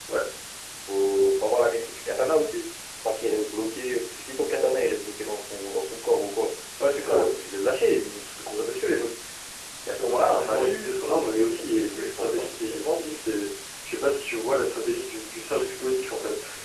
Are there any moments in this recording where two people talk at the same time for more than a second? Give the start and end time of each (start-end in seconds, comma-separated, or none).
9.9-13.0